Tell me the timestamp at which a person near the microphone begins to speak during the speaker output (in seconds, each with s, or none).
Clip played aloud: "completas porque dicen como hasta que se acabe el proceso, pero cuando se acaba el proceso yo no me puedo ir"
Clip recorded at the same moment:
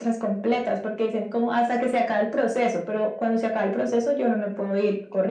none